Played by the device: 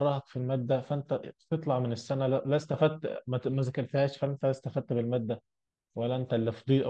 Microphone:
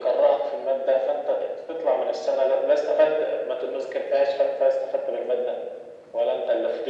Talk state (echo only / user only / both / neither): echo only